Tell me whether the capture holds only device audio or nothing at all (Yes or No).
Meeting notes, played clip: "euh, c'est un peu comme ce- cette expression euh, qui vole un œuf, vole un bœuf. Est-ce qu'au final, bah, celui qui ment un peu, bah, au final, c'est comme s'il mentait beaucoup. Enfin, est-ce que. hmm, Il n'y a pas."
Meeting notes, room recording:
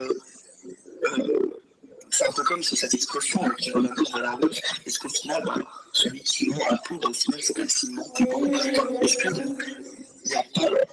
No